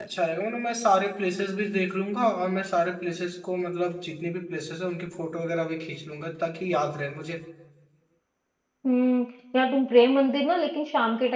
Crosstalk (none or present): none